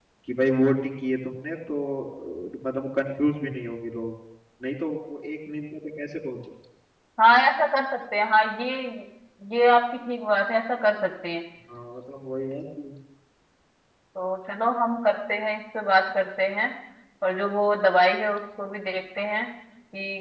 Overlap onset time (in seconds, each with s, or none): none